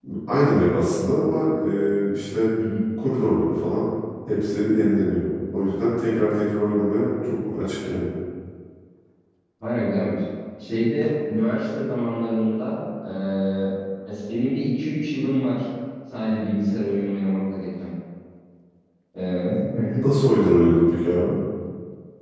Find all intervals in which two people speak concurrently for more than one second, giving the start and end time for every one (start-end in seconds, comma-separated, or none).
none